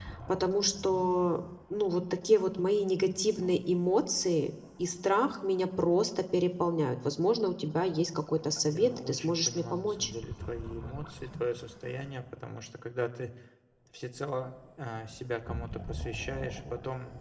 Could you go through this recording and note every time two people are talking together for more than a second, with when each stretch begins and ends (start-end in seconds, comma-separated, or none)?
8.7-10.1